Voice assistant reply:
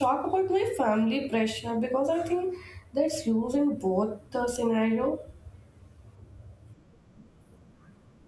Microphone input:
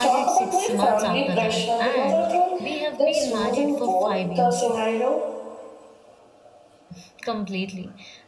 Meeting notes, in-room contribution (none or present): present